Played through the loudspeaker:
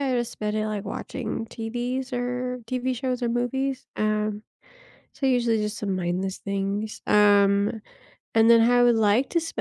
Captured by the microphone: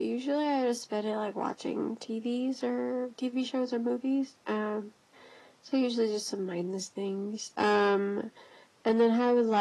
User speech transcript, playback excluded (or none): none